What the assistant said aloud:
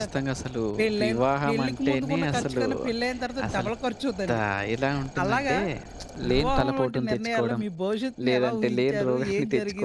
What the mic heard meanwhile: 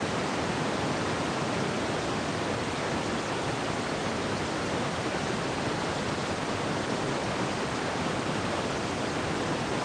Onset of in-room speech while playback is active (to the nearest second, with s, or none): none